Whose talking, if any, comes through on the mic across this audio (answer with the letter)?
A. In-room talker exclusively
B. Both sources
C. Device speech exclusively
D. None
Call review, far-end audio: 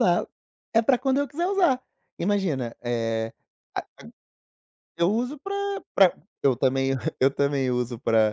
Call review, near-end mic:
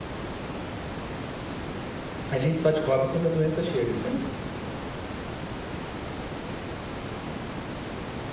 A